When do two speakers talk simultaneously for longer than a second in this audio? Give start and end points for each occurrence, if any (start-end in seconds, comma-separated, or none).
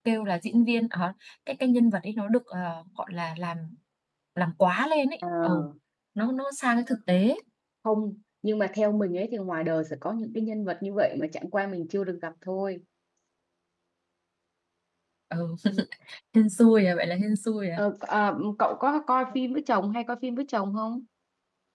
none